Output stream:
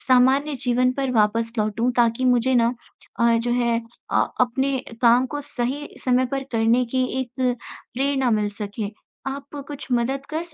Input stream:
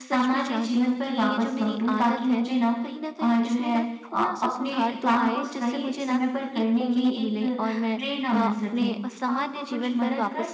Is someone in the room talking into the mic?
Yes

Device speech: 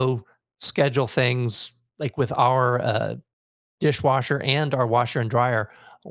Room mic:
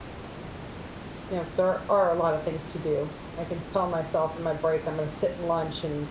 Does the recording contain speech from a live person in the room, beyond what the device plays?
Yes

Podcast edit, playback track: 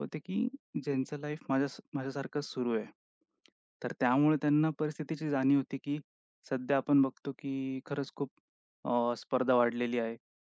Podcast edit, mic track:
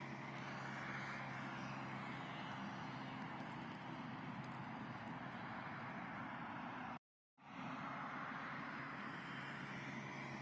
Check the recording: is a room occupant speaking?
No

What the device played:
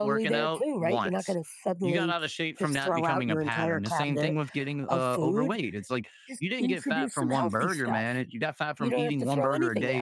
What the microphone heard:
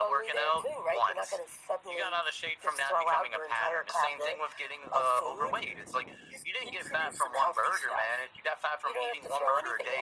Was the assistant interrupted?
No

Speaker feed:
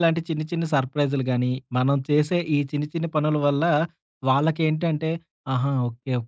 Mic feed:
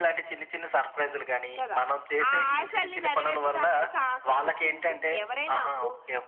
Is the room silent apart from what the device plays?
No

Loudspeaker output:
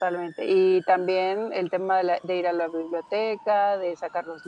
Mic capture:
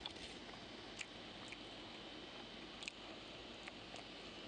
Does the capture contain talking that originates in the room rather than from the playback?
No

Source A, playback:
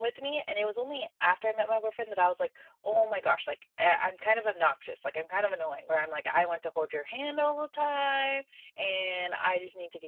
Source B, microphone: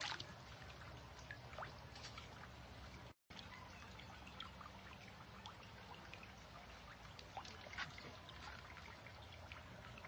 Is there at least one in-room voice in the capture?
No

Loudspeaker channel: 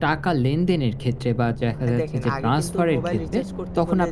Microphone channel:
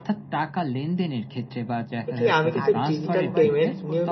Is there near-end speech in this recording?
Yes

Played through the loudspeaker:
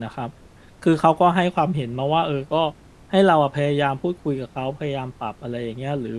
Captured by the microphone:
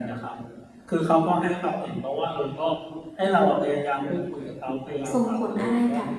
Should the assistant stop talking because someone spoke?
Yes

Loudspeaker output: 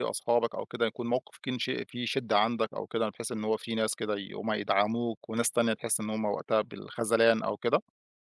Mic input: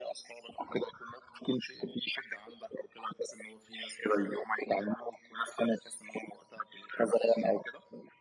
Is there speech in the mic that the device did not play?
No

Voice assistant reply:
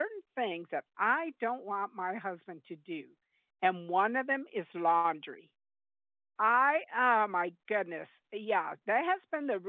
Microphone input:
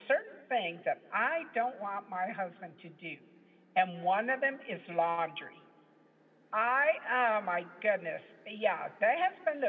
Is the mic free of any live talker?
Yes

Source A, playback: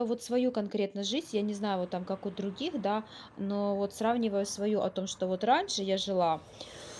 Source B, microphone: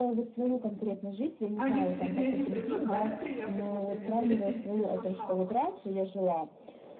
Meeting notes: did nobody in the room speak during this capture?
No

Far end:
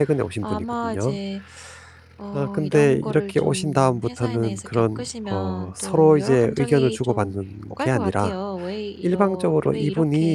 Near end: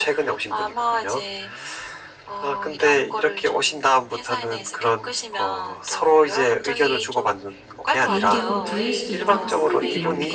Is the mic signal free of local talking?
No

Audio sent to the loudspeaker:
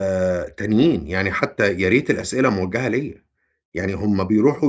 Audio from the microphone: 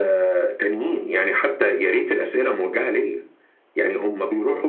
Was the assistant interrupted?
No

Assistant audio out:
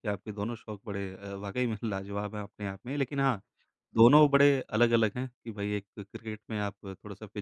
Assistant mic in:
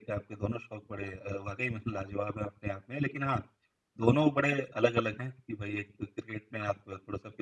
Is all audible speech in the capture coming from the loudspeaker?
Yes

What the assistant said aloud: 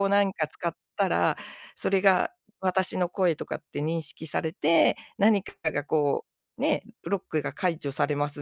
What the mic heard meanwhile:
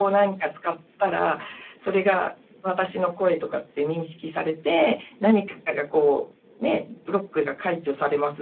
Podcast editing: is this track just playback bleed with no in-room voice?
Yes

